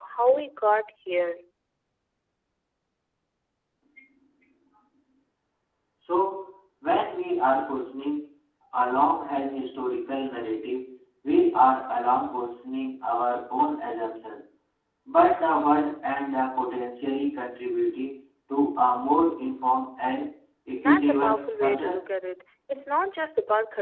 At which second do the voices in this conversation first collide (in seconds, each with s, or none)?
20.8 s